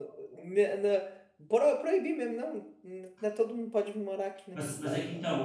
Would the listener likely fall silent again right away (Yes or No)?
No